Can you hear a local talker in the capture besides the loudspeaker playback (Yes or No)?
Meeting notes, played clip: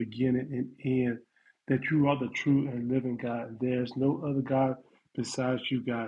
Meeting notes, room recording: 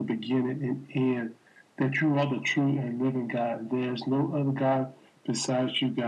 No